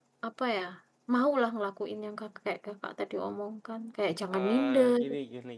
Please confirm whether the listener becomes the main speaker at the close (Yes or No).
Yes